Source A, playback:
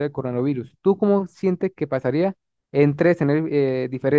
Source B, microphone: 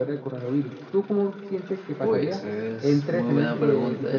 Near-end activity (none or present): present